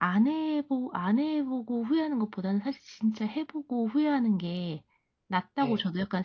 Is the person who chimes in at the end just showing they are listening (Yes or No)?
Yes